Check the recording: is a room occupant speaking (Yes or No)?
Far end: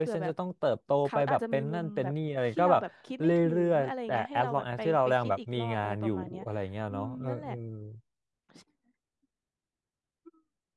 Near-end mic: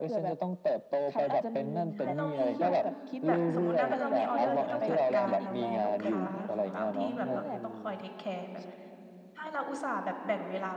Yes